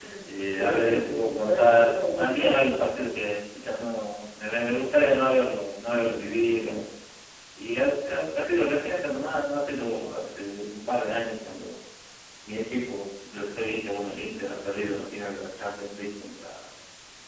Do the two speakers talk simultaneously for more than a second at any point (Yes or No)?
Yes